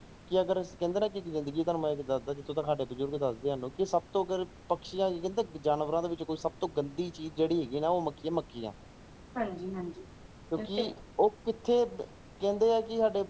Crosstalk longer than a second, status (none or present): none